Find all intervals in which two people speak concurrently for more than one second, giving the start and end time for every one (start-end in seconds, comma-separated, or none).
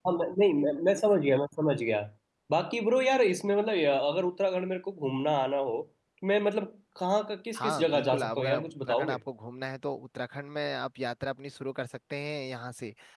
7.6-9.2